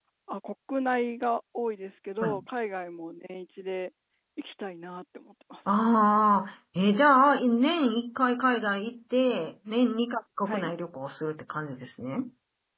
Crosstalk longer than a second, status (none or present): none